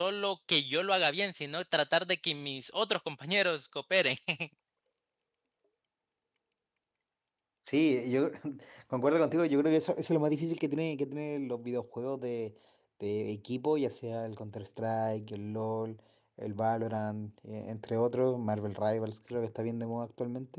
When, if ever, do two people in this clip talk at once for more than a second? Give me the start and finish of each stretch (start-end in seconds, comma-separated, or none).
none